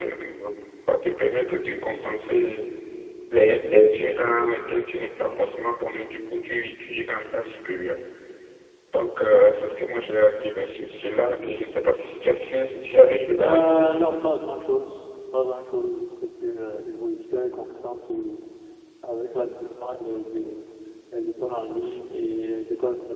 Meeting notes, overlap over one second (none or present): none